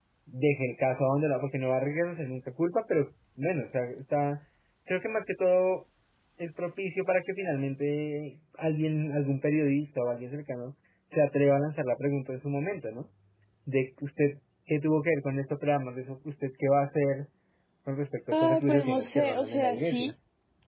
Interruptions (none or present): present